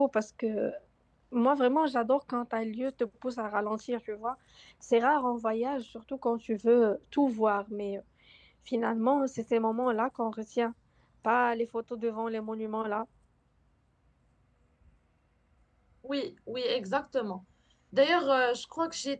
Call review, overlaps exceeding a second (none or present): none